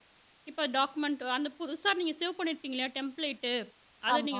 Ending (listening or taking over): listening